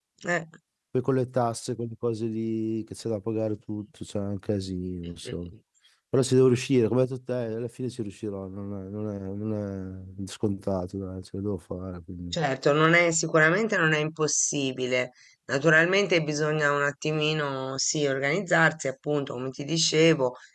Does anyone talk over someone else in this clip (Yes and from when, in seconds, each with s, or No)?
No